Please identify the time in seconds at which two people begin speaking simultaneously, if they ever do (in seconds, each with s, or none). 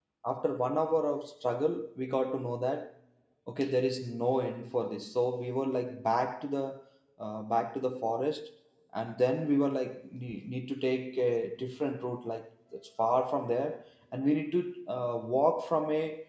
none